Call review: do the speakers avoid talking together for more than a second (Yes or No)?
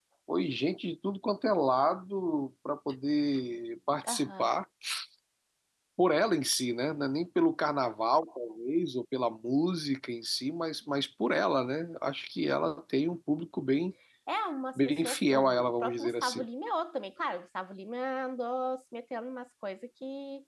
No